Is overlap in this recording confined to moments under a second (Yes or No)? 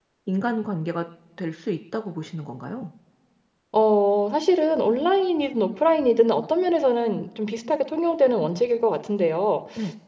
Yes